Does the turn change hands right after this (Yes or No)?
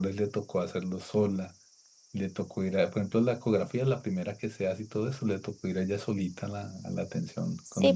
Yes